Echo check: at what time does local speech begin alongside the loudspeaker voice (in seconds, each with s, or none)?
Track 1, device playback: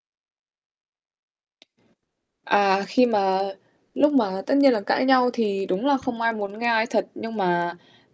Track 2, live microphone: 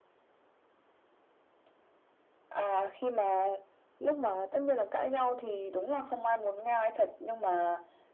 none